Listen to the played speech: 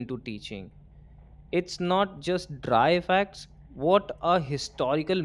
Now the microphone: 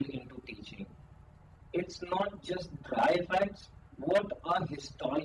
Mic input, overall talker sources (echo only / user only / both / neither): echo only